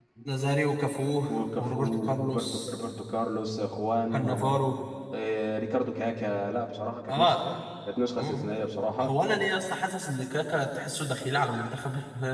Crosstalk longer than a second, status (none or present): present